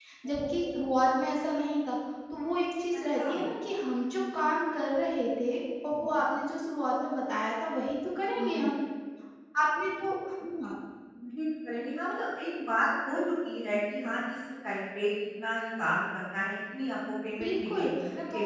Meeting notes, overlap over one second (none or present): none